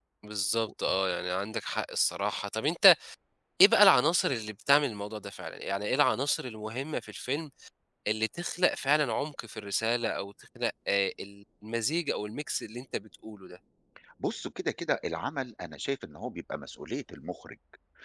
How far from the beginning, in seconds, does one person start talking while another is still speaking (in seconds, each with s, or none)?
none